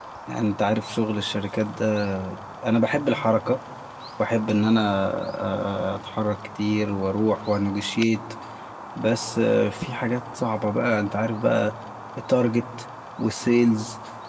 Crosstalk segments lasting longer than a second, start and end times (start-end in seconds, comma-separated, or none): none